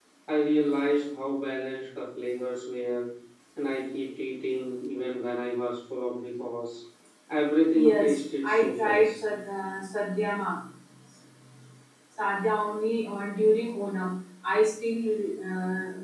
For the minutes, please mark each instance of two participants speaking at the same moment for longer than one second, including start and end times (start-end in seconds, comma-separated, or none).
7.7-9.0